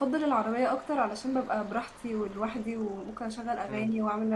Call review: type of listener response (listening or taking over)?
listening